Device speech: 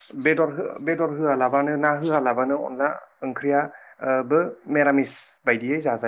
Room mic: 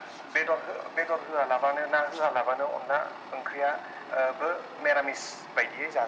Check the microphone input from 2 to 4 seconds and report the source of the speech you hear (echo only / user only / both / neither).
echo only